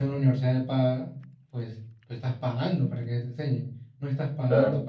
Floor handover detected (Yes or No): No